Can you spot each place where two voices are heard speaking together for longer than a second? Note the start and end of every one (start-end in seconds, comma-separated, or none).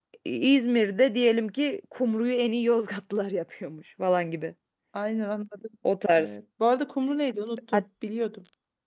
none